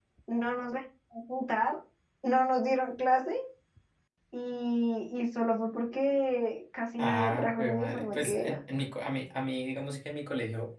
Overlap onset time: 7.0 s

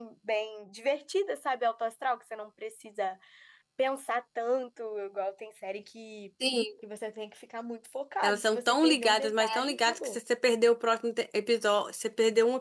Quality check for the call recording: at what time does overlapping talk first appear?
8.2 s

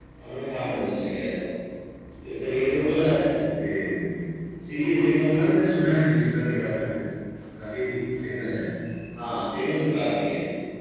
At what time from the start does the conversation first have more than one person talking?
none

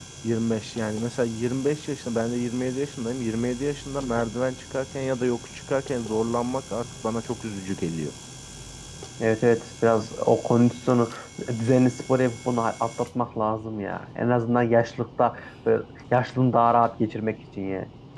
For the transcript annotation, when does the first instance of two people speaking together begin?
none

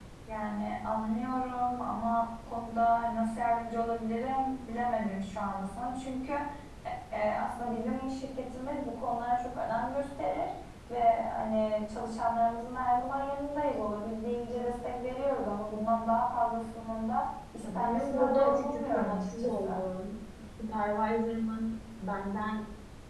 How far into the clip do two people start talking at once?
17.6 s

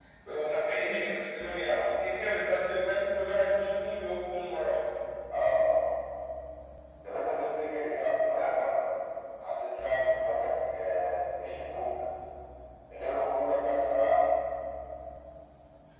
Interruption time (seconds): none

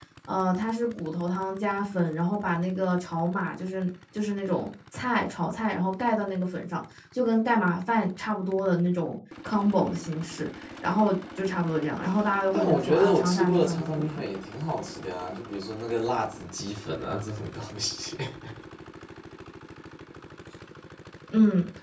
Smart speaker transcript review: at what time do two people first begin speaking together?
12.5 s

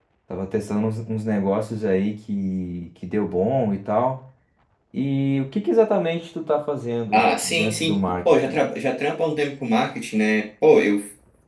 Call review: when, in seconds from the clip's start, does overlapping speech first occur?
7.1 s

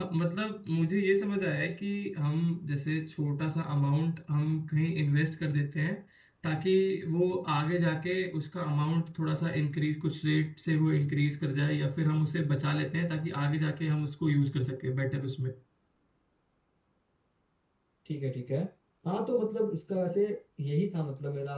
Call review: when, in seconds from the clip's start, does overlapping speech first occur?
none

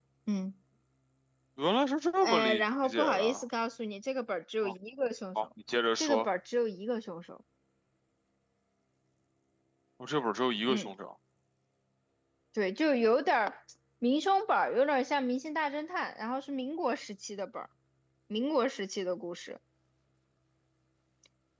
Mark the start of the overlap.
2.2 s

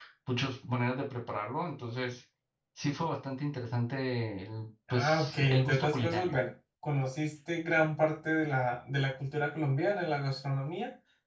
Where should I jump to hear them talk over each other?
4.9 s

